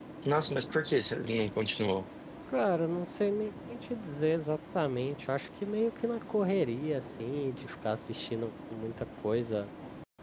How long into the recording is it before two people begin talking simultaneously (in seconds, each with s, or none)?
none